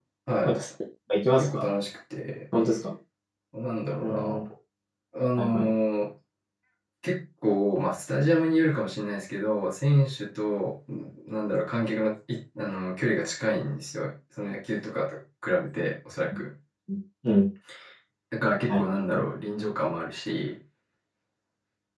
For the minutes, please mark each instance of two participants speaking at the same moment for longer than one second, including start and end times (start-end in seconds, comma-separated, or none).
none